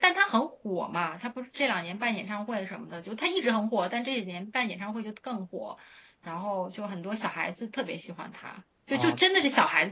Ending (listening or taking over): listening